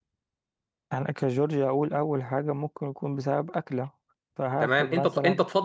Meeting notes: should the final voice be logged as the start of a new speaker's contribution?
Yes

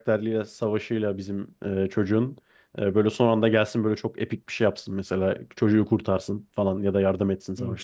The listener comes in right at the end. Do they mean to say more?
Yes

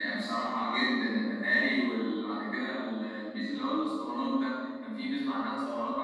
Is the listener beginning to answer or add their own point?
No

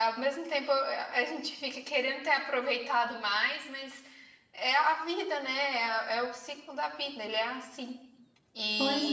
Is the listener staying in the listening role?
No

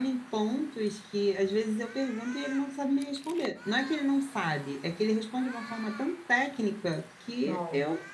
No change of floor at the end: Yes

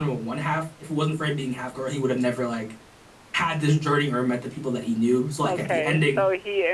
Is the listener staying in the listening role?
No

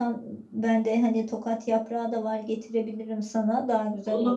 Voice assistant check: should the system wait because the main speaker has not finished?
No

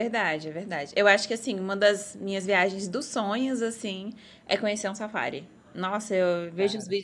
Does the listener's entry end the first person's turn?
No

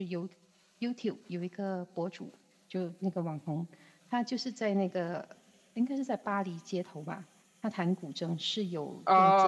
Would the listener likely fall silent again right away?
No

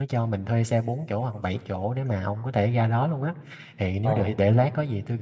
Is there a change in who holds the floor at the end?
No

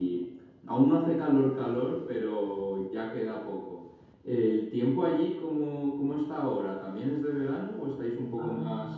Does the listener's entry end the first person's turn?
Yes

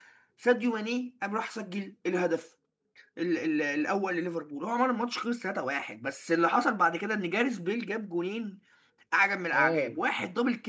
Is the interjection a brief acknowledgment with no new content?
Yes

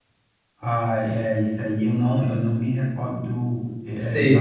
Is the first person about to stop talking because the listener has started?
No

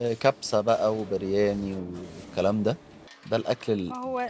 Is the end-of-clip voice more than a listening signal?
No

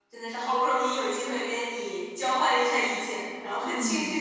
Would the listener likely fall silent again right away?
Yes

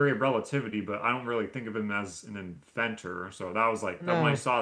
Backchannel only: Yes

